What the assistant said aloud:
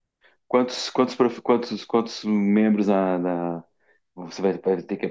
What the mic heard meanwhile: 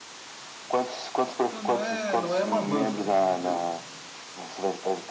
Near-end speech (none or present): present